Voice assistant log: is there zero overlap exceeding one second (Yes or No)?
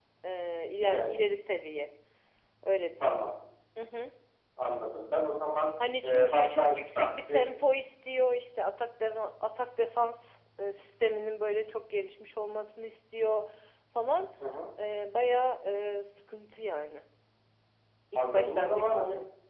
No